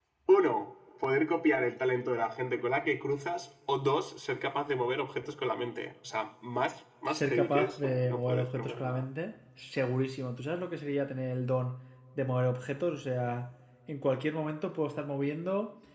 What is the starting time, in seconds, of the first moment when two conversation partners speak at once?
7.1 s

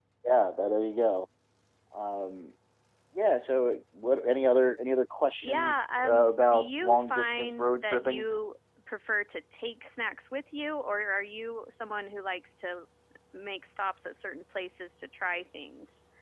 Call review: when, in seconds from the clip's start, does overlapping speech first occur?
5.4 s

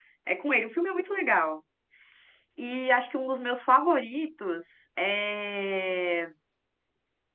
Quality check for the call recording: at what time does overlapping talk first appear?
none

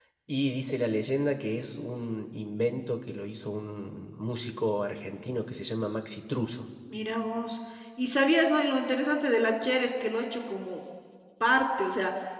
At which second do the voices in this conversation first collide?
none

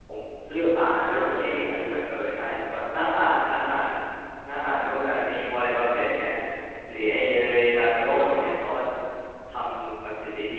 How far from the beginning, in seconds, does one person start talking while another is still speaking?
0.5 s

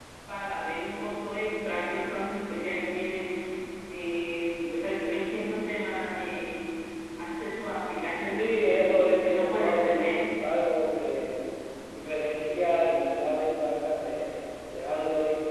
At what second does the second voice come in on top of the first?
8.4 s

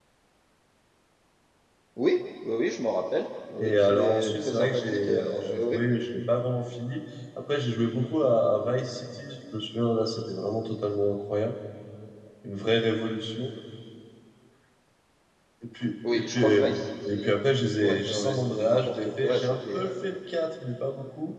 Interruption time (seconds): 3.6 s

